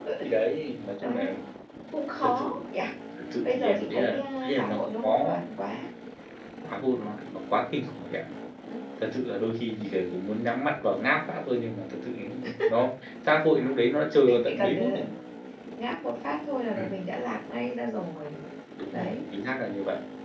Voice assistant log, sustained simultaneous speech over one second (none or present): present